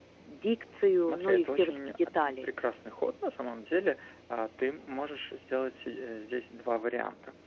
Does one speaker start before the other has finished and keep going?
Yes, from 1.0 s

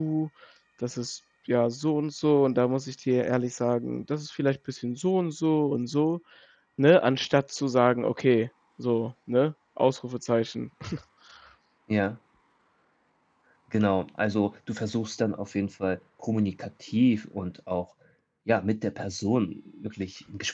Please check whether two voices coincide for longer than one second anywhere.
No

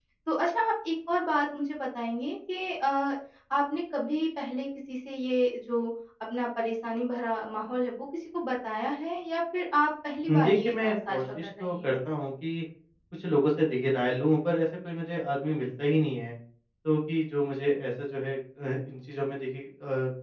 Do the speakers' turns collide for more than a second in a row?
Yes, from 10.3 s

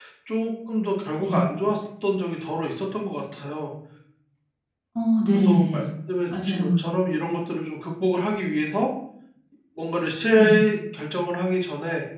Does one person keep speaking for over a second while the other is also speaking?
No

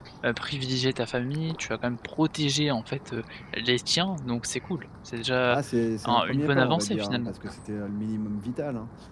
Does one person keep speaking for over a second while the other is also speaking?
Yes, from 6.0 s

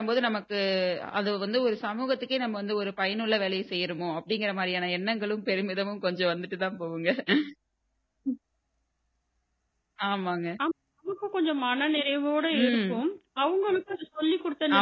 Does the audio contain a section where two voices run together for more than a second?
No

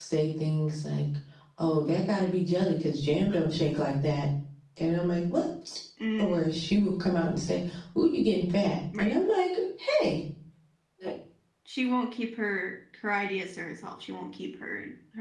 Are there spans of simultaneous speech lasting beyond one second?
No

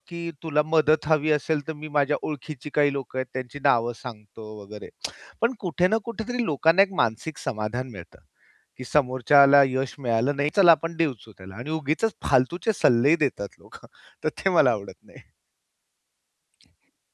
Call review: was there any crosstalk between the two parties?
No

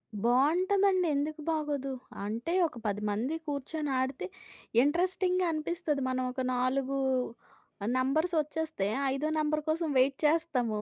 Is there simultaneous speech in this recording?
No

